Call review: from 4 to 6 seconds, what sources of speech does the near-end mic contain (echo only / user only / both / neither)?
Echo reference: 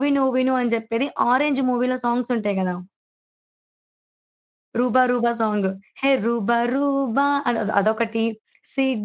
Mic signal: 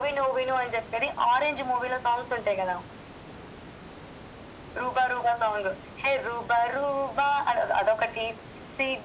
echo only